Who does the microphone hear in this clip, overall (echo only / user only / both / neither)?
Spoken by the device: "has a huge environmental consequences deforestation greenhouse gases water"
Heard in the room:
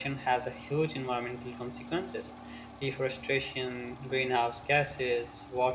echo only